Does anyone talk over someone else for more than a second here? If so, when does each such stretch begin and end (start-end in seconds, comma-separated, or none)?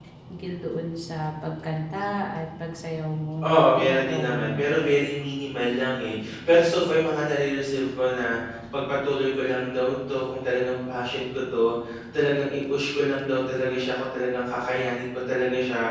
3.4-4.6